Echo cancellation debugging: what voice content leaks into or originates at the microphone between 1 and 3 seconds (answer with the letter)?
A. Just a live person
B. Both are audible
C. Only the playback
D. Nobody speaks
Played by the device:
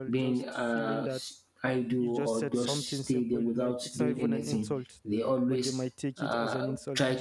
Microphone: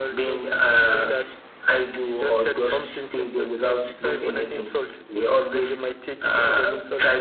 C